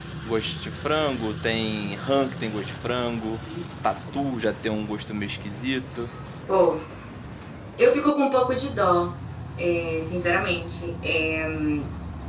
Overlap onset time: none

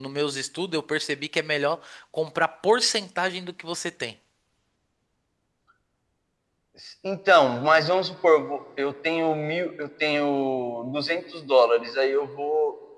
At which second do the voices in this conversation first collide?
none

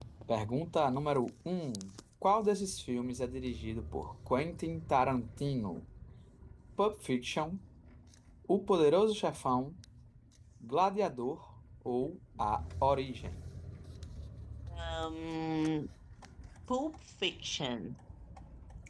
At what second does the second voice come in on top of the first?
none

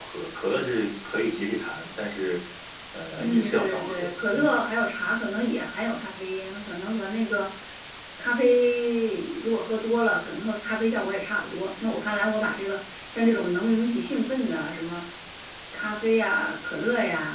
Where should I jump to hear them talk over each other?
3.2 s

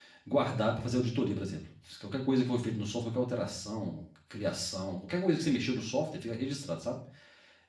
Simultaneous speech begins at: none

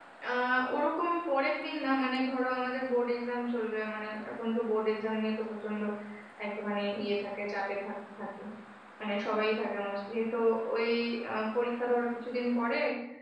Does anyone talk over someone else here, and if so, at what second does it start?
none

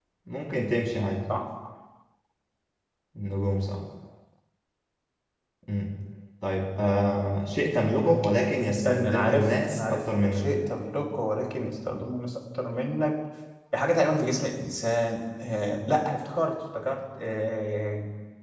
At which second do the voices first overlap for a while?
8.8 s

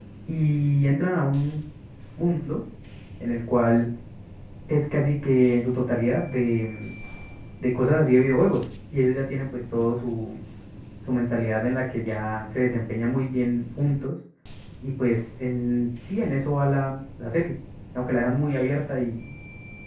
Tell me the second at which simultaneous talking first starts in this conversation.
none

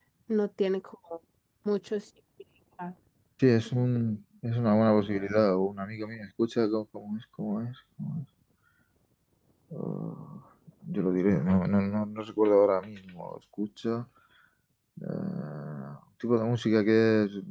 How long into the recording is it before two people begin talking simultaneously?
none

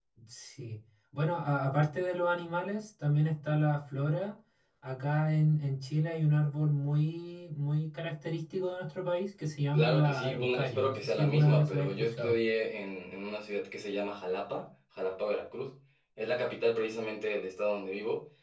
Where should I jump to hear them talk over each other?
9.7 s

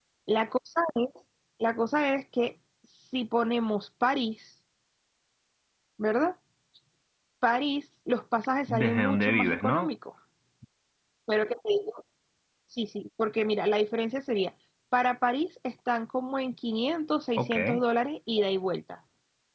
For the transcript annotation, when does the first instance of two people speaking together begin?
8.7 s

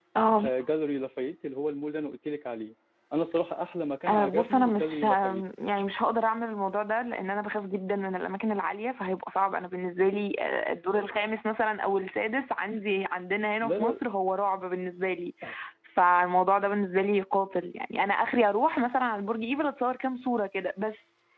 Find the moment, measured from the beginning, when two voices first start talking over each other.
4.1 s

